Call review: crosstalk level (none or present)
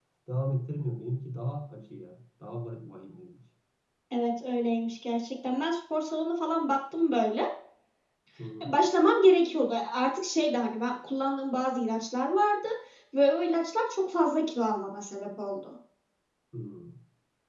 none